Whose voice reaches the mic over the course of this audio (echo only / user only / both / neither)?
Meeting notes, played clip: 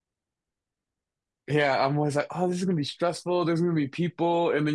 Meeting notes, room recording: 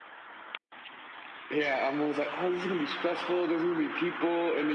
echo only